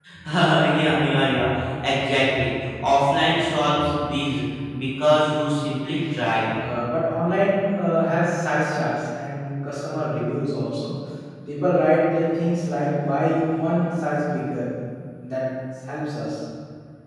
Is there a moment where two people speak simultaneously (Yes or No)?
No